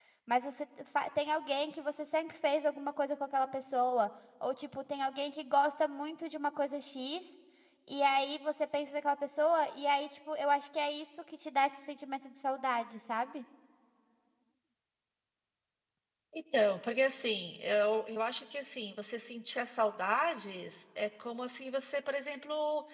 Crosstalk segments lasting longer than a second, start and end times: none

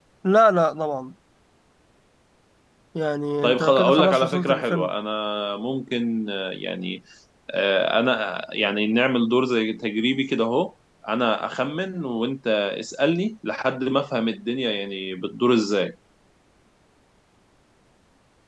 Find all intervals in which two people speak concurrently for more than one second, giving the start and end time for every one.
3.4-4.9

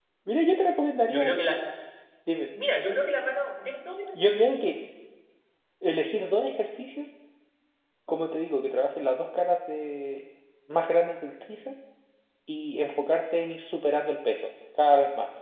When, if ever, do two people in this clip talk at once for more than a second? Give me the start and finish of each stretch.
none

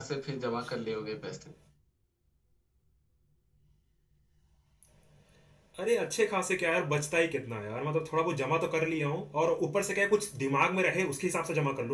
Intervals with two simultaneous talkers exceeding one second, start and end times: none

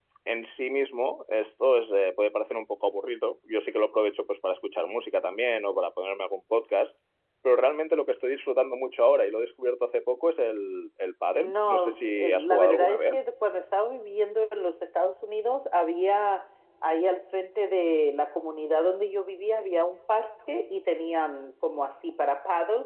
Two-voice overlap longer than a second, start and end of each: 11.4-13.2

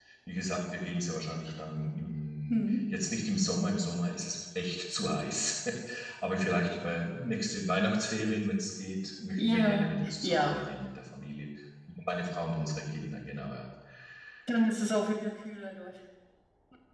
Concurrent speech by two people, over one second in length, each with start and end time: 9.4-10.6

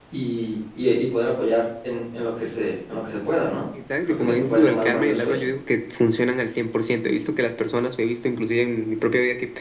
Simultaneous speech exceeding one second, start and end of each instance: 4.0-5.5

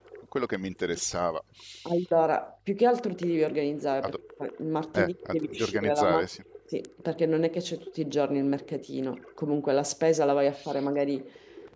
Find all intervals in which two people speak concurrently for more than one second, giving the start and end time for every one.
4.9-6.2

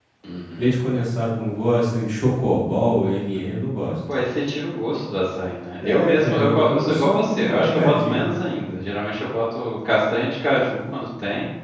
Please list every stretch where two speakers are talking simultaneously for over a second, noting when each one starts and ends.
5.8-8.3

